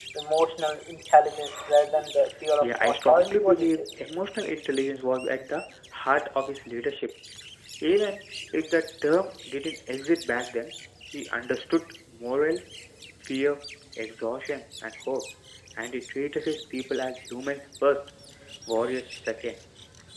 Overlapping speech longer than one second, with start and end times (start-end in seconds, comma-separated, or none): 2.6-3.8